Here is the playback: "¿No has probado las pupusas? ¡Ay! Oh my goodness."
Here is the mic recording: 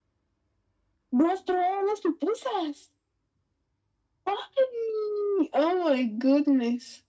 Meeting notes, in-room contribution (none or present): none